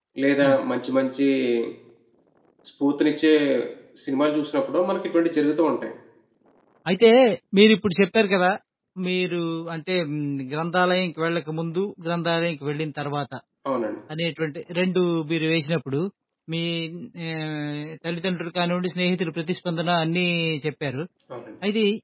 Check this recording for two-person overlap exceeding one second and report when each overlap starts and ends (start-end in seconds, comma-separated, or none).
none